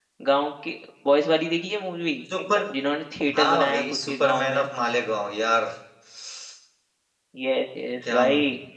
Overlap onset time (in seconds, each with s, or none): 3.4 s